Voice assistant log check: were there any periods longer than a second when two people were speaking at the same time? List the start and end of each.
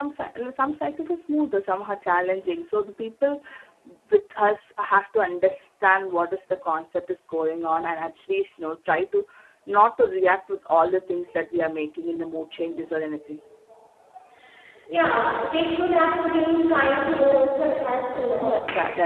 none

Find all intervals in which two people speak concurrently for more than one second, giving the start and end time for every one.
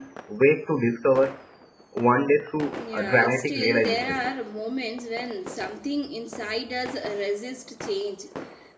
2.9-4.2

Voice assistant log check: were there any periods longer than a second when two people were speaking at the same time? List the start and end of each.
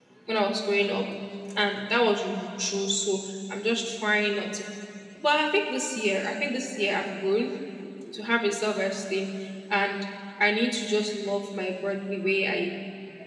none

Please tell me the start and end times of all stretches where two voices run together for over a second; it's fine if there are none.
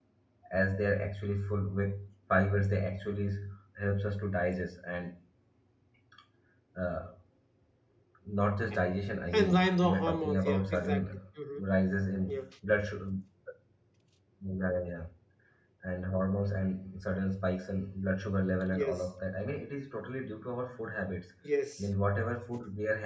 9.3-11.0

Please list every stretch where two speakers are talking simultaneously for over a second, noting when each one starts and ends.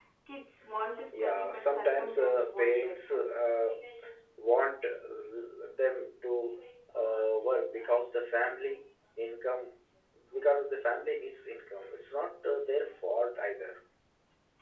1.1-3.3

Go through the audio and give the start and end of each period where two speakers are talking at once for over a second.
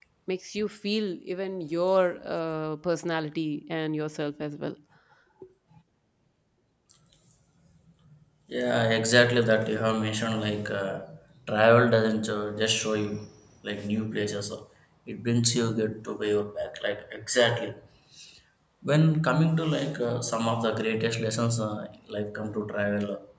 none

